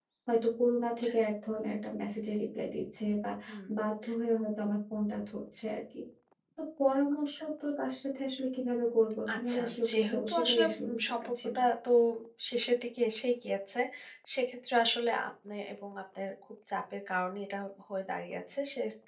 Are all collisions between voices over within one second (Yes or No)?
No